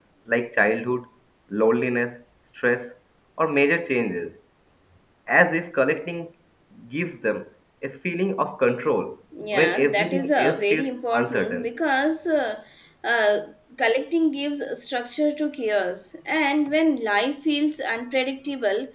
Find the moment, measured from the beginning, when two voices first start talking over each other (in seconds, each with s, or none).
9.3 s